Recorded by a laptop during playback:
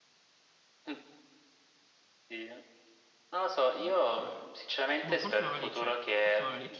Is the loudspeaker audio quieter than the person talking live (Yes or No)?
No